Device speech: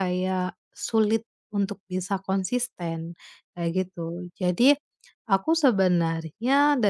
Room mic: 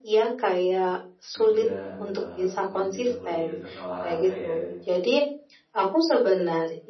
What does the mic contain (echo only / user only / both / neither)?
both